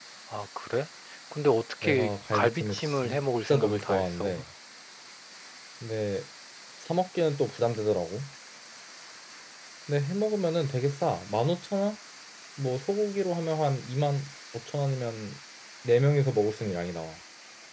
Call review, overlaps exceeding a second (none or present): present